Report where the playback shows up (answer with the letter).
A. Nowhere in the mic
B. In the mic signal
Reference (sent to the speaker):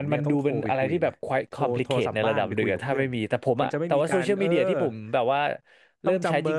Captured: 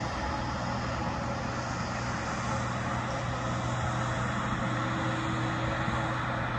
A